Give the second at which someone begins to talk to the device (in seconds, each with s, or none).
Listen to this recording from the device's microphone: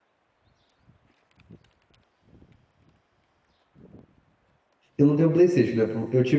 5.0 s